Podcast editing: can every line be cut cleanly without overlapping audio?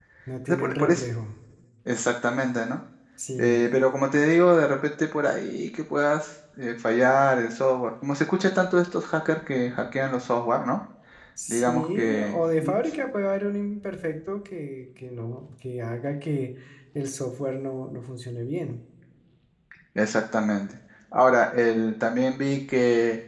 No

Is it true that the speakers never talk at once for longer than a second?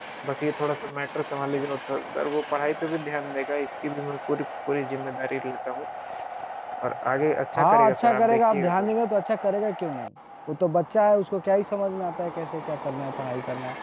No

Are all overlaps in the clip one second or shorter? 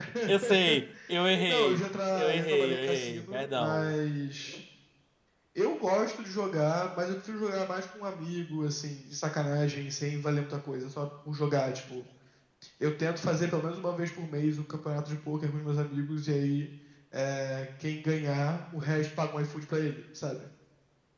No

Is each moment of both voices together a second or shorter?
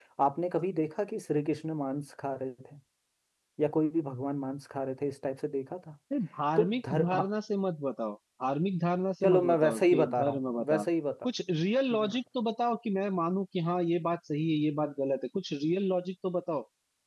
No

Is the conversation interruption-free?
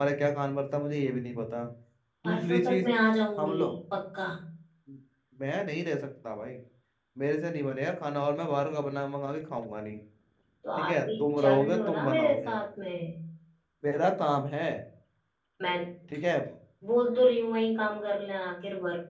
No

